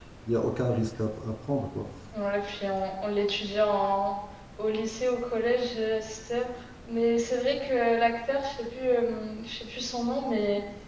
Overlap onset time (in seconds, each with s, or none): none